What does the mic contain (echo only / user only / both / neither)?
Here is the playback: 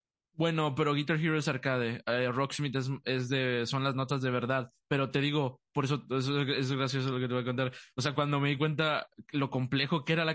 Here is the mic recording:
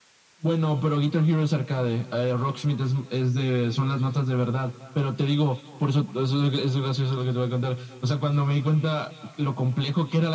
echo only